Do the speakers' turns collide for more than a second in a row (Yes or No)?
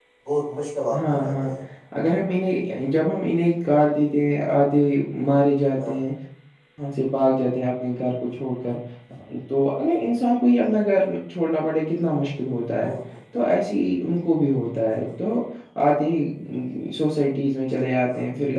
No